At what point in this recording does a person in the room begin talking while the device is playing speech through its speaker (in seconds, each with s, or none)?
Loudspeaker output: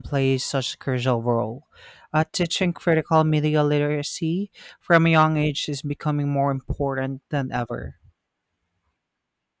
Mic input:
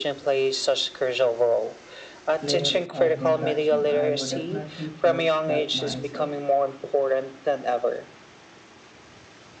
2.4 s